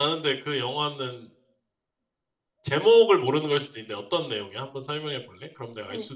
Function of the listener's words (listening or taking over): taking over